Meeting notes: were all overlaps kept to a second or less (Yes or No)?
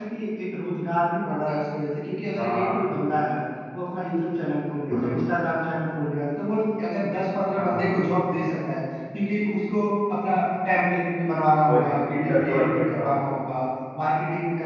No